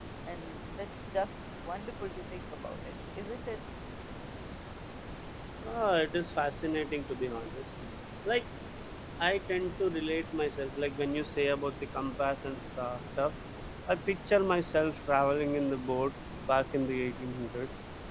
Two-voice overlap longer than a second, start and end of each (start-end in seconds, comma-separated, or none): none